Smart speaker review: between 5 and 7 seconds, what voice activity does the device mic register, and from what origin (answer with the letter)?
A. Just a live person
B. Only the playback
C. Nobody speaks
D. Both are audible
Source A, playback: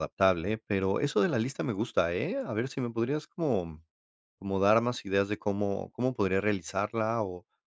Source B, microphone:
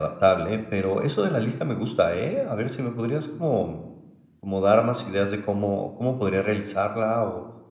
B